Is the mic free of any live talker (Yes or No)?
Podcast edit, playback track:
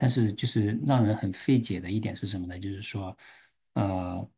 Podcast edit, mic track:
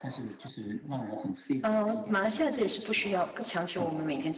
No